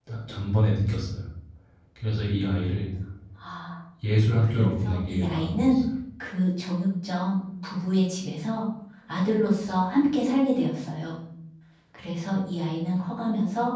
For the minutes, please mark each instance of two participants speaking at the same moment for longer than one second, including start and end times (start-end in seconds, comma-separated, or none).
4.6-5.8